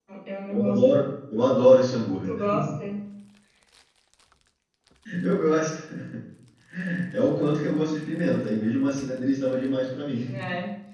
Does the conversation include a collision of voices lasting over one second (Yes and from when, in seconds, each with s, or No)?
No